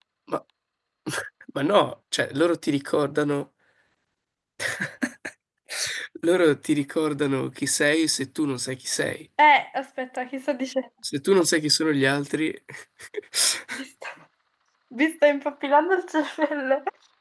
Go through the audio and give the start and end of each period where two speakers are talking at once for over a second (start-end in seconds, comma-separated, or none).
none